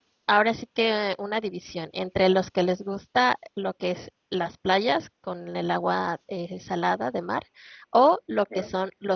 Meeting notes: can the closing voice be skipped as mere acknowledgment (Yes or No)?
Yes